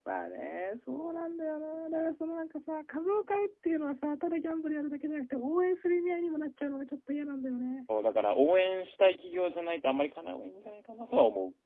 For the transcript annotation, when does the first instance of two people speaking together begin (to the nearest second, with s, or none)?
none